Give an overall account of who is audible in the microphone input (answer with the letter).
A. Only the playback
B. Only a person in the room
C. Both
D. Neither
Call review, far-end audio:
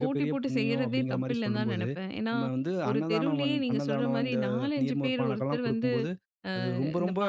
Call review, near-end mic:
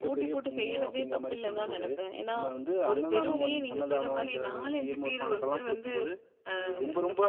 A